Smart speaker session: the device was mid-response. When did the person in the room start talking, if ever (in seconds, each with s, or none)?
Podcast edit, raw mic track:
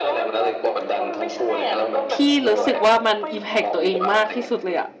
2.1 s